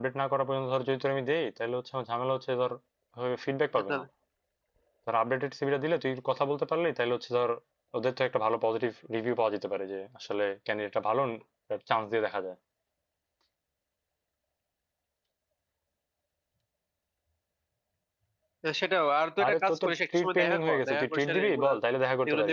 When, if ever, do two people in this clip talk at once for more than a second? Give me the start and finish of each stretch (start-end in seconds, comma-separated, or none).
19.4-21.7